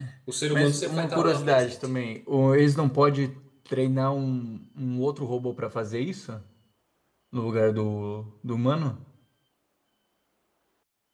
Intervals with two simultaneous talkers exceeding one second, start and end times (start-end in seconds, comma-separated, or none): 0.5-1.8